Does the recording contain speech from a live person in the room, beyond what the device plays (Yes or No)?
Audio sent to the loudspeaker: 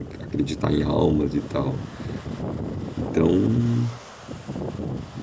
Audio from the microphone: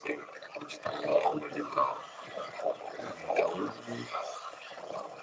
Yes